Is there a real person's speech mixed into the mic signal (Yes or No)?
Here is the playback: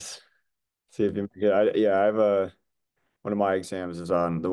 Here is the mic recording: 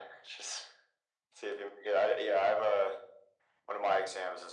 No